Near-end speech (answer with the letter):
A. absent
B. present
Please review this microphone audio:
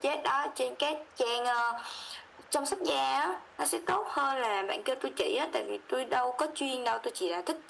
A